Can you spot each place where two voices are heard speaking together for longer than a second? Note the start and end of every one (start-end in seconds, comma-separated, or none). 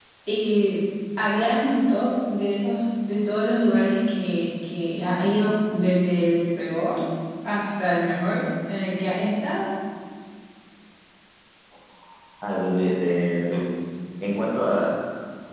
none